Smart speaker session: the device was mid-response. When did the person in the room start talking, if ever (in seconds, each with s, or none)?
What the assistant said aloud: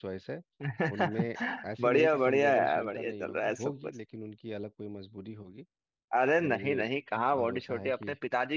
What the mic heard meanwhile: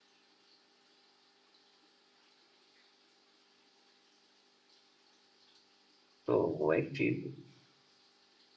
6.2 s